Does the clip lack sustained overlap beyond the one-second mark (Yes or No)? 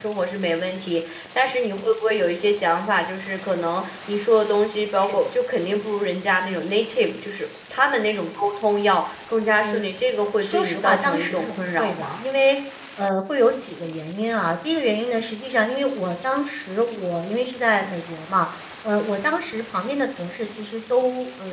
No